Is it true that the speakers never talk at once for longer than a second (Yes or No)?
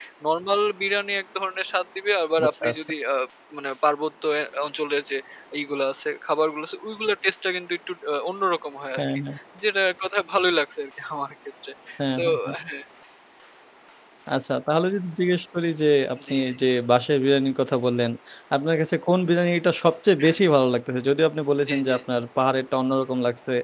Yes